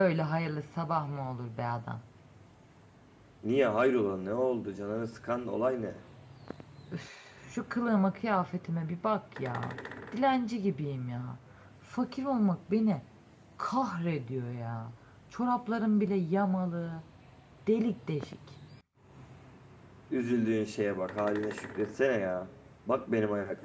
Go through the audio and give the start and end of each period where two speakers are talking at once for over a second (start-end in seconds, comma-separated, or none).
none